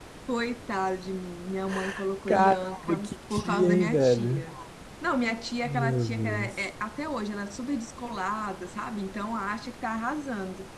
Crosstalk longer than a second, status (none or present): present